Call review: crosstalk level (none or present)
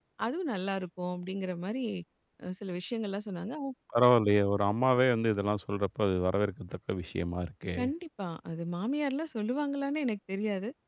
none